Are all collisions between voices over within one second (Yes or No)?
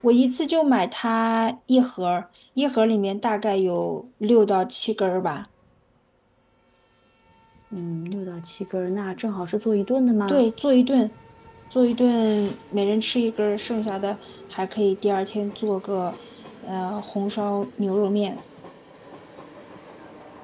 Yes